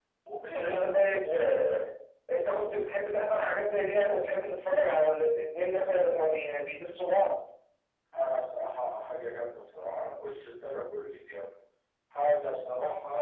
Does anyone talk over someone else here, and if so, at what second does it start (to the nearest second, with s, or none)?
1 s